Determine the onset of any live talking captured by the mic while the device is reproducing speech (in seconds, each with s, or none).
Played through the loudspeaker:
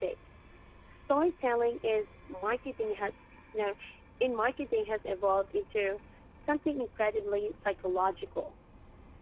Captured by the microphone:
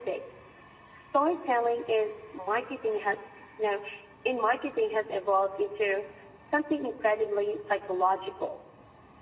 none